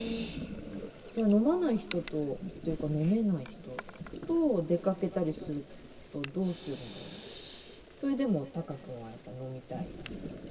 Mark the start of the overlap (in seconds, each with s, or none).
none